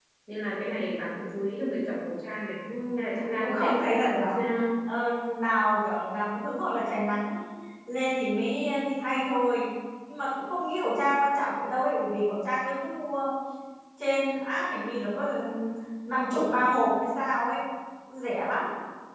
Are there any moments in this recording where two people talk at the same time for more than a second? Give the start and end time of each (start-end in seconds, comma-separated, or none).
3.2-4.5